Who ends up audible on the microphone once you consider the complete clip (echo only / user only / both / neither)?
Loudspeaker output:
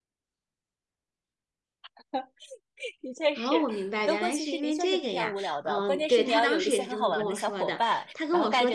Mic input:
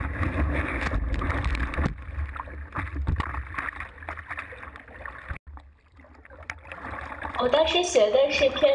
user only